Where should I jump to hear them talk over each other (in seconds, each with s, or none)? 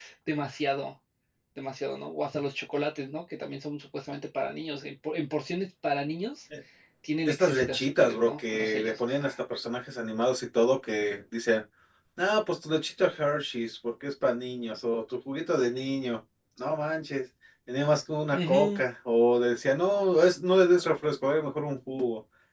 7.2 s